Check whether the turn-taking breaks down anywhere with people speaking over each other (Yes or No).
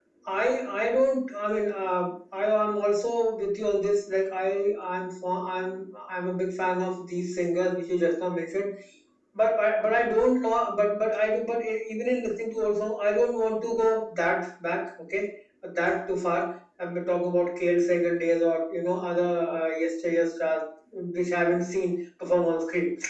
No